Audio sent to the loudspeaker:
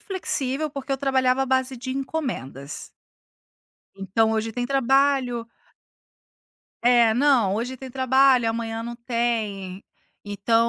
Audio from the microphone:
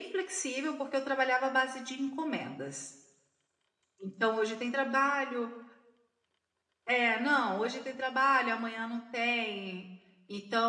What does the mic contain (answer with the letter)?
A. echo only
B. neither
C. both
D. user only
A